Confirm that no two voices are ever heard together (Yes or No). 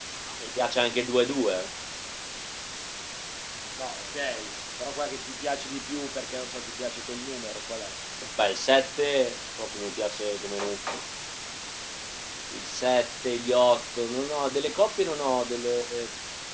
Yes